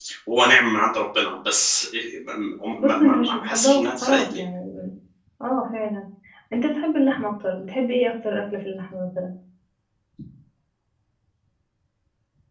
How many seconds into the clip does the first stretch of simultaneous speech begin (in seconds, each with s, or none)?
2.8 s